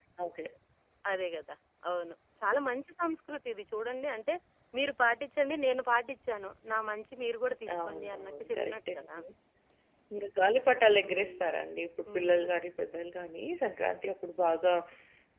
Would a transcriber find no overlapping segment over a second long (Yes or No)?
No